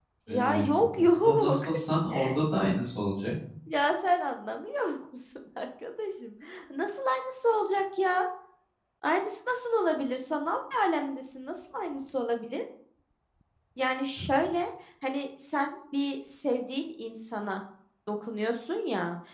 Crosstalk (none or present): present